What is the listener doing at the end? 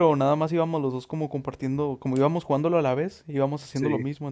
listening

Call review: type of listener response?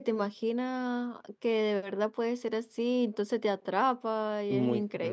taking over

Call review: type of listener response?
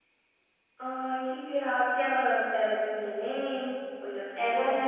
taking over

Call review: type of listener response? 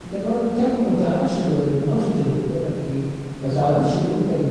listening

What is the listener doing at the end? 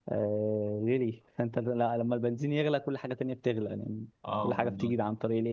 listening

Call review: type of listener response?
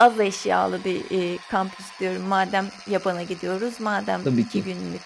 listening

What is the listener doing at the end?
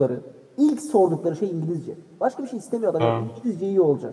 listening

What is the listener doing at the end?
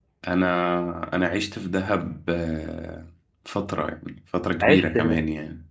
listening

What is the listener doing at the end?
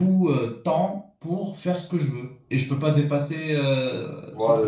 taking over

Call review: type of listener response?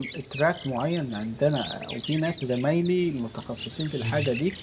listening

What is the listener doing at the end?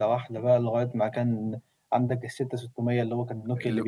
taking over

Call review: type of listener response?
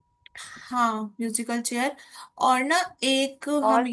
listening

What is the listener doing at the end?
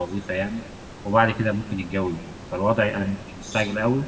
listening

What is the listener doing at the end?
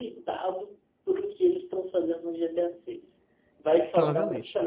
listening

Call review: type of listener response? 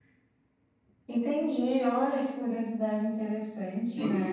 taking over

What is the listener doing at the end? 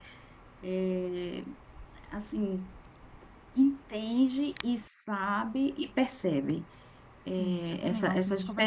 taking over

